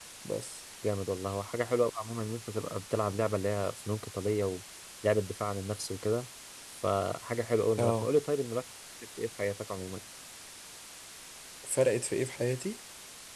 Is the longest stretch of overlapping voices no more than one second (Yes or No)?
Yes